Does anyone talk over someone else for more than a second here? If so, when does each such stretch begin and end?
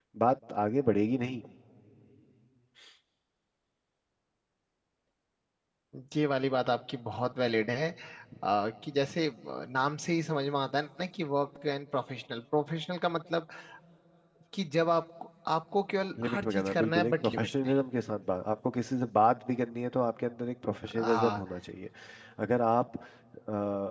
16.2-17.7

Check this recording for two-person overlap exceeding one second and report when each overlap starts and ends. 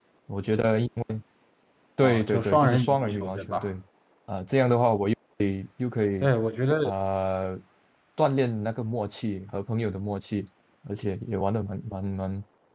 2.0-3.7

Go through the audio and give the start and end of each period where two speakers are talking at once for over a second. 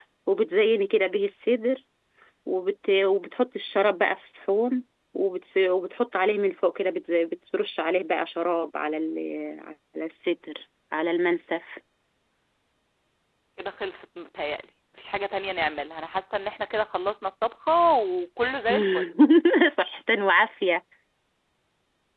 none

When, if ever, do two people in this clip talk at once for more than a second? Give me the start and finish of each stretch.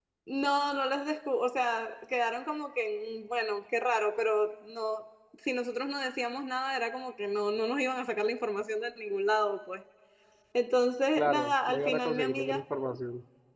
11.2-12.6

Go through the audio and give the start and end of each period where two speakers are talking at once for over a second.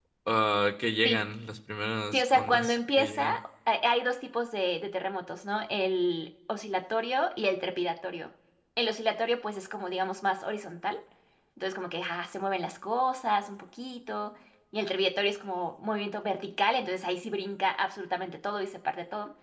2.1-3.4

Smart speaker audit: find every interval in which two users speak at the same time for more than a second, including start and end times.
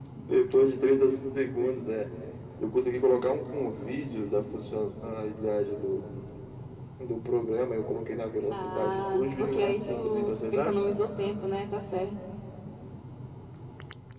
8.5-10.8

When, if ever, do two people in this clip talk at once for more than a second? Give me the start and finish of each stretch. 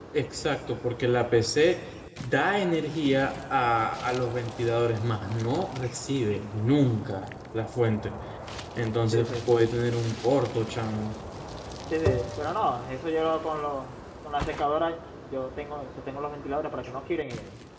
none

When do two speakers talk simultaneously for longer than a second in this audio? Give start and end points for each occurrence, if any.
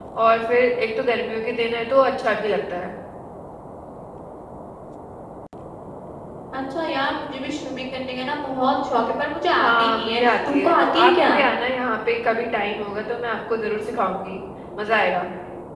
9.6-11.4

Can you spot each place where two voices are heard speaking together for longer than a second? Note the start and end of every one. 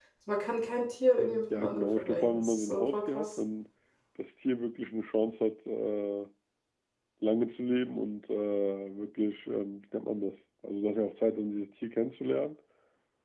1.5-3.3

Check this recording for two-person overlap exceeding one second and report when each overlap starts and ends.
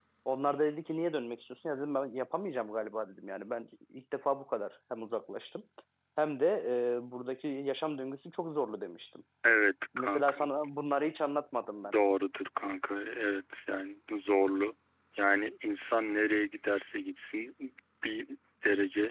none

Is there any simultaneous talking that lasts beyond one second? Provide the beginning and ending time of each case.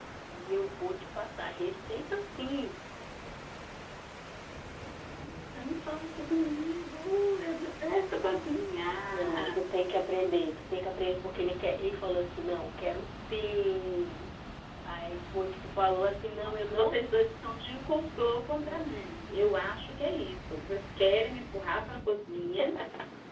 none

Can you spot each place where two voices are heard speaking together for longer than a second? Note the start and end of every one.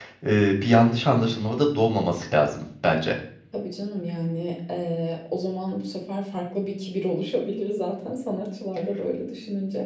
none

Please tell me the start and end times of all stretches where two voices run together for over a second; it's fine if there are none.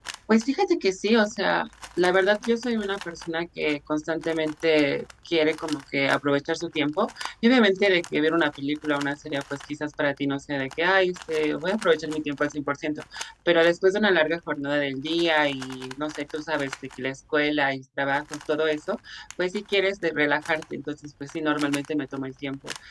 none

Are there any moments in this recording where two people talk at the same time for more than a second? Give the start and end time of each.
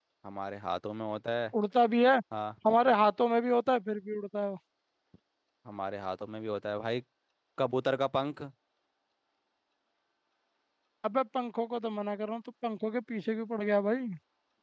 none

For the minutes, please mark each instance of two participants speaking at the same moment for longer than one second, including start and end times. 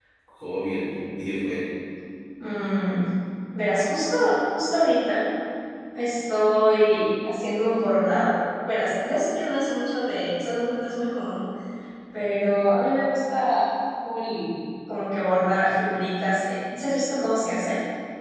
none

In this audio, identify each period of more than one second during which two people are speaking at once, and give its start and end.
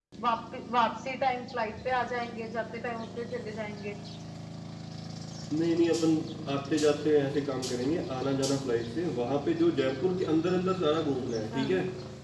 none

